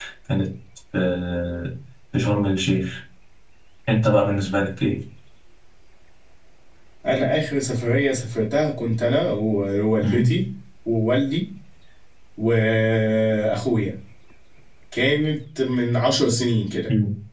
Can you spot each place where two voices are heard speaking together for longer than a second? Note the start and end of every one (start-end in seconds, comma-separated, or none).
none